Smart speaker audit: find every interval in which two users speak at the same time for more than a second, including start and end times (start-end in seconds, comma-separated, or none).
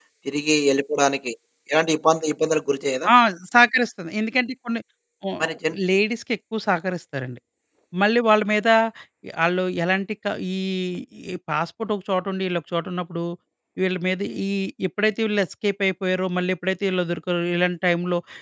none